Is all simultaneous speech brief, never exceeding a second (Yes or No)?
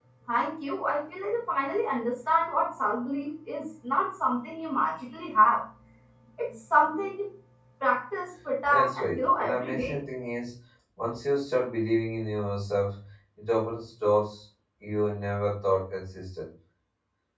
No